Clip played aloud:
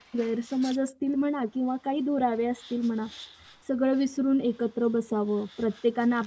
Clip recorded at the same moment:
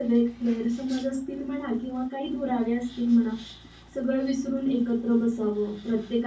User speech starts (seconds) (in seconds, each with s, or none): none